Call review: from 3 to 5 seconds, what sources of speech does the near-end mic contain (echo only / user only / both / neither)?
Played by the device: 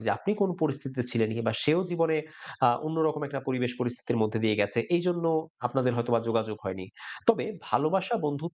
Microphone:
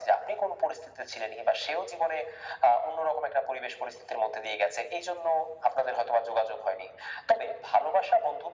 echo only